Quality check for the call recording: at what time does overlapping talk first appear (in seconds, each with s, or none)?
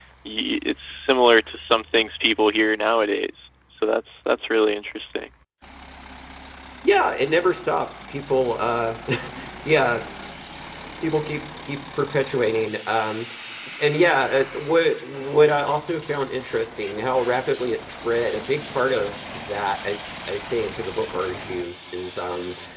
none